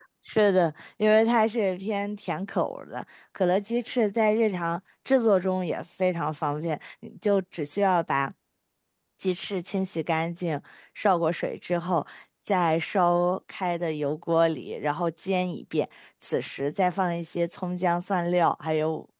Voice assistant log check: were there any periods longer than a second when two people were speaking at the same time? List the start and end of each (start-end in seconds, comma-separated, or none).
none